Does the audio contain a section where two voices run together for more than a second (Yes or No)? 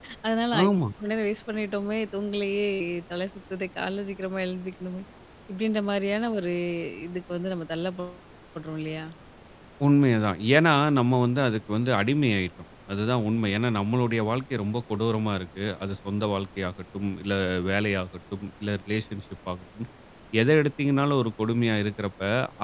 No